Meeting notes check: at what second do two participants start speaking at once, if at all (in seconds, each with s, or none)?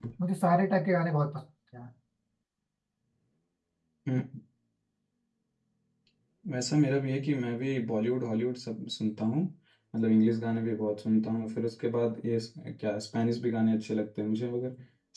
none